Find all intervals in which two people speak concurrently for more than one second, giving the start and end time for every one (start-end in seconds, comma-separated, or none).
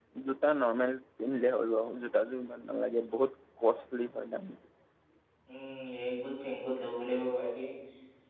none